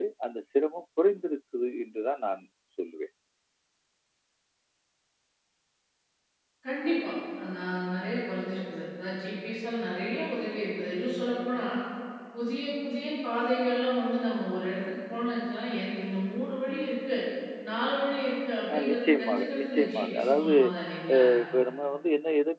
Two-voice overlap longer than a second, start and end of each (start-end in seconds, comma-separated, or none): 18.8-20.6